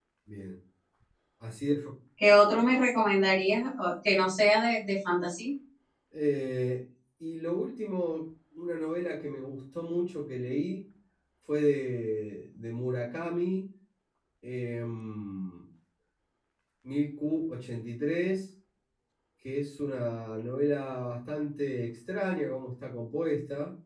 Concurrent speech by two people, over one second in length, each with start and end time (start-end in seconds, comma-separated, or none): none